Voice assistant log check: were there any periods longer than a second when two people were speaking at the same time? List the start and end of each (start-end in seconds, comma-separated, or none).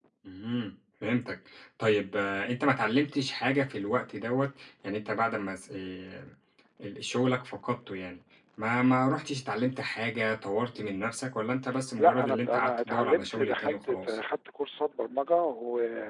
12.0-14.2